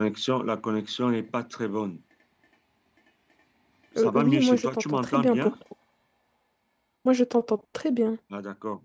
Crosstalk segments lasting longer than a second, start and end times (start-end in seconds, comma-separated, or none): 4.0-5.5